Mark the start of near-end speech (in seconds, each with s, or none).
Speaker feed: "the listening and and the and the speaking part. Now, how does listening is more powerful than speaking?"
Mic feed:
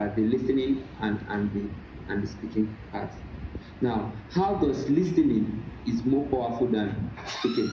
none